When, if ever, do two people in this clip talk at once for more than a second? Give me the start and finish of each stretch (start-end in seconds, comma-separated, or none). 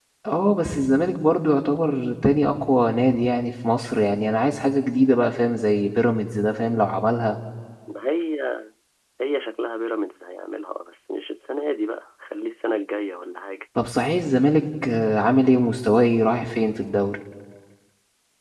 none